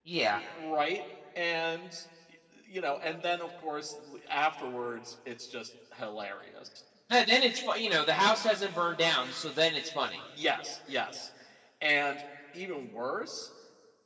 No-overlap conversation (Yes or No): Yes